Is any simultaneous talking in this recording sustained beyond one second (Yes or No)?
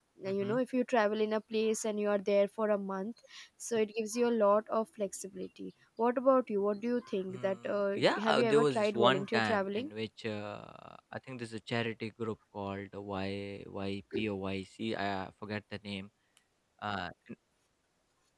Yes